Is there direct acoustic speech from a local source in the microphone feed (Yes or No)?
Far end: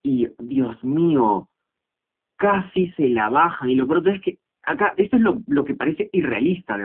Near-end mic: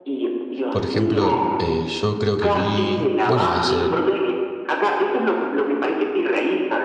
Yes